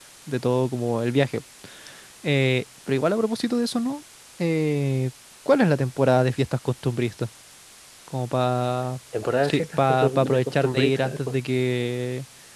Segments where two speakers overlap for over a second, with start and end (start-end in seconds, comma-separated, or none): 9.4-11.3